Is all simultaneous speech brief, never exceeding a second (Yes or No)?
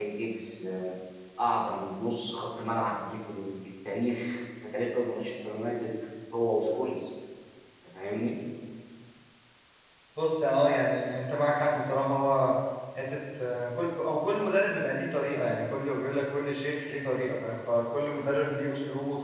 Yes